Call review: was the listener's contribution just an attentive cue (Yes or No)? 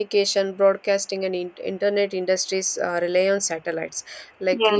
Yes